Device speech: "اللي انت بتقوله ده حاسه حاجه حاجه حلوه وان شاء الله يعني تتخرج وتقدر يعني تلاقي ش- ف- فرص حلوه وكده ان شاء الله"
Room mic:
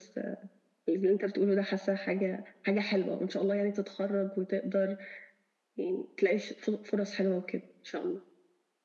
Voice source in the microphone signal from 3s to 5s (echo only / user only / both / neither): echo only